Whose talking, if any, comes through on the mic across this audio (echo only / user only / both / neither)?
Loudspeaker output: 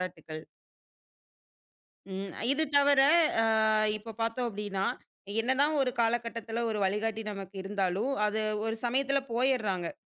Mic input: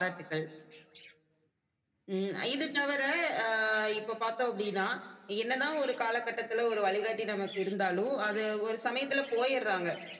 echo only